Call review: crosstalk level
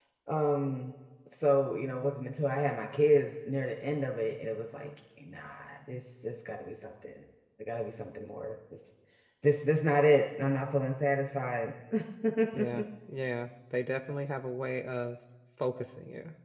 none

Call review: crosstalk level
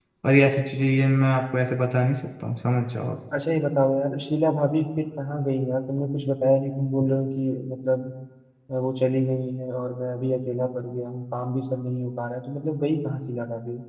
none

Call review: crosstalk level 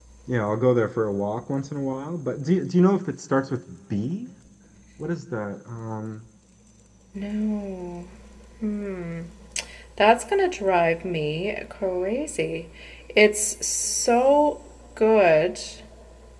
none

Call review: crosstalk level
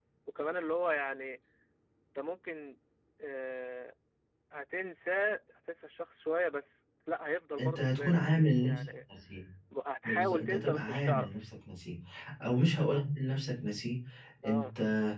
present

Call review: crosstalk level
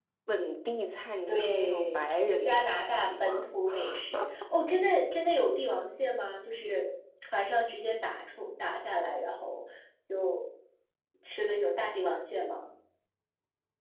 present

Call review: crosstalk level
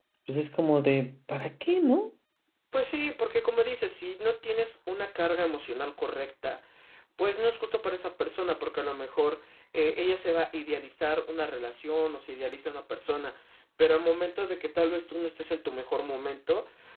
none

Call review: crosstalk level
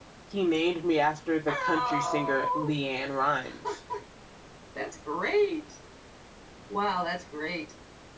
present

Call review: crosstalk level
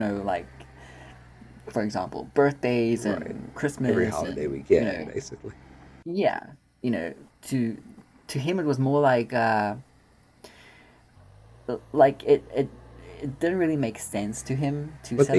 present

